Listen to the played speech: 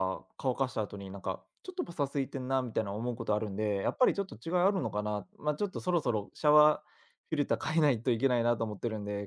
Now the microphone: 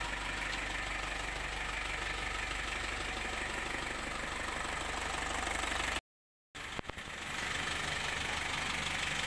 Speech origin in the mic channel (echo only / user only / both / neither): neither